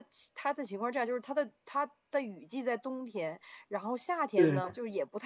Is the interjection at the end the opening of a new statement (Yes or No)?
No